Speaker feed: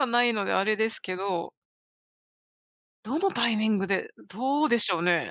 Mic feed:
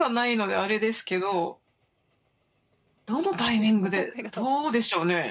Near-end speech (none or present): present